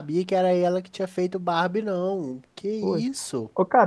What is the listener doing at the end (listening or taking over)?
taking over